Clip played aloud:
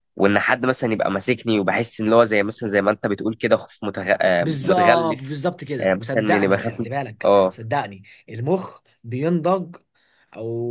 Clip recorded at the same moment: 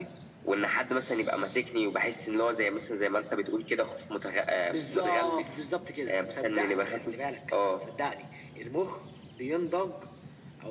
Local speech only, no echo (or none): none